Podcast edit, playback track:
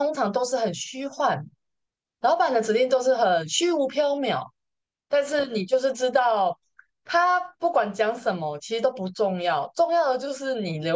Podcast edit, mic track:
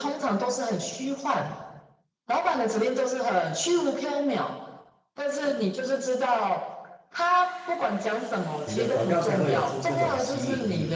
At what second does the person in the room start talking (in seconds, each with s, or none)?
8.6 s